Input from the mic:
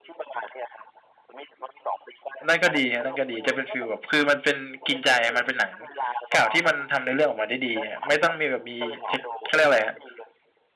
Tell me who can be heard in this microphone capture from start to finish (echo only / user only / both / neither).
both